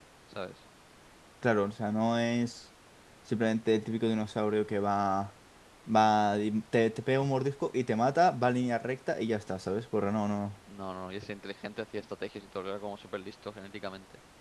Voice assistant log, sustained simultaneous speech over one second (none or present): none